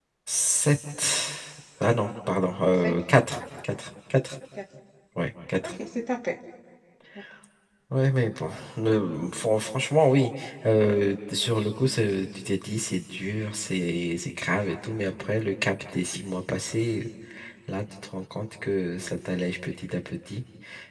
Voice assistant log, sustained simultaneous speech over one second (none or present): none